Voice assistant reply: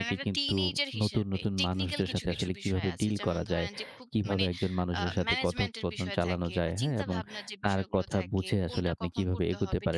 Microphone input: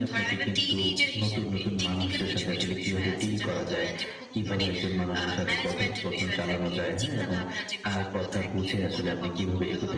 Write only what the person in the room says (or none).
none